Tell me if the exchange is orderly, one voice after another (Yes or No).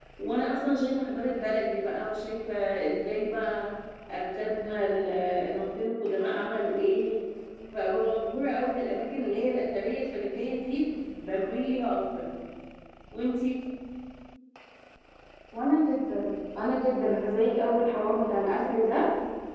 Yes